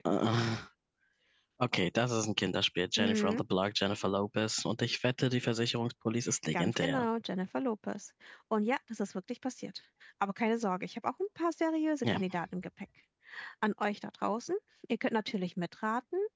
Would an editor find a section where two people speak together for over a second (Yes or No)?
No